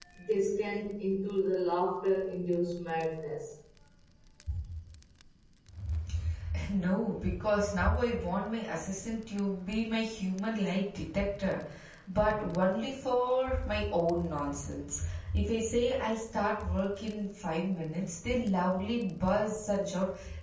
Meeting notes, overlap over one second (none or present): none